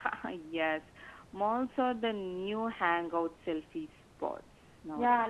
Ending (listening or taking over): taking over